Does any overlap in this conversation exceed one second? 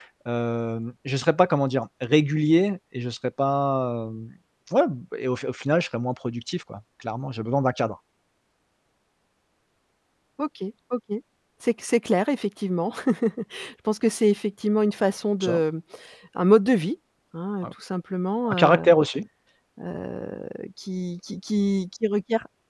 No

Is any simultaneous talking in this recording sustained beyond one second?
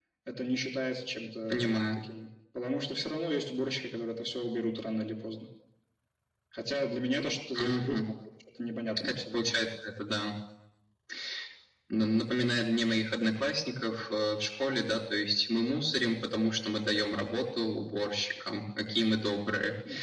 No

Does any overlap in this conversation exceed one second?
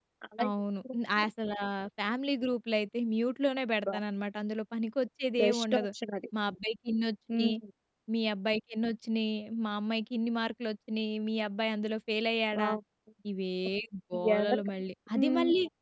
No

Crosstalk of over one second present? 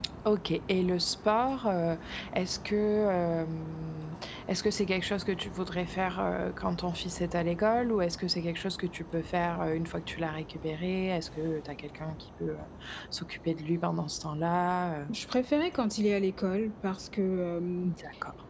No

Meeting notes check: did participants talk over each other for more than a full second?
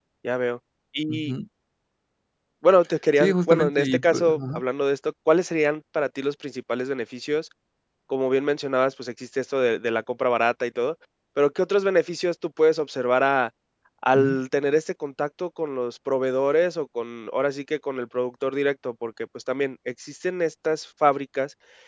Yes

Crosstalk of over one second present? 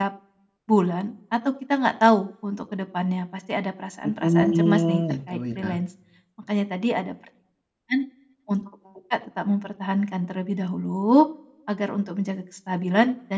Yes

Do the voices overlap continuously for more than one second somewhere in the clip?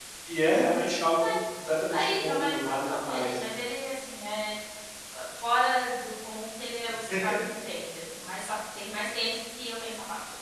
Yes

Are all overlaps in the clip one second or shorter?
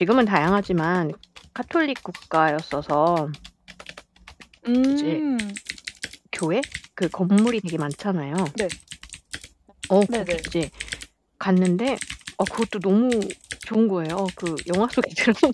Yes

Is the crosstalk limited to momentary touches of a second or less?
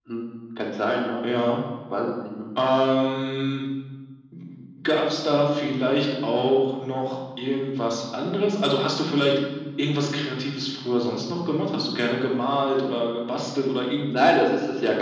Yes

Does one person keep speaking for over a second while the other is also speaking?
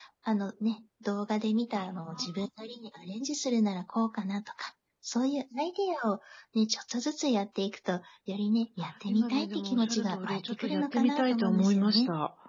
Yes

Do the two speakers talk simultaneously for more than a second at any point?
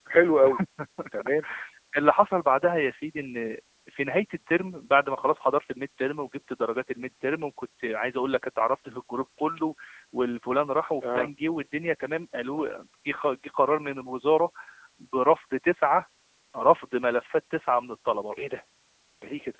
No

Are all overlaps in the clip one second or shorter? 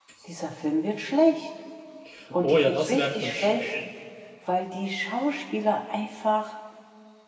No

